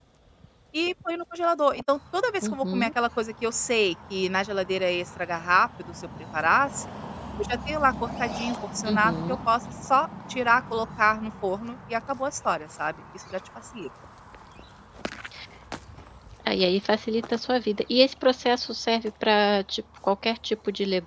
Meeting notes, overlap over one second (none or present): none